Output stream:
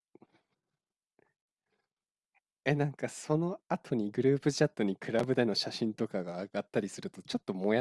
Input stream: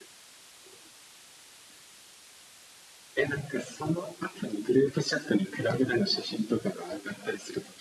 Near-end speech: none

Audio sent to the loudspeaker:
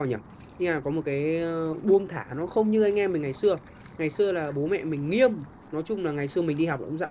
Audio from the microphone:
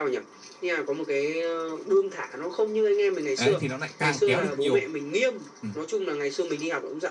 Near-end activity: present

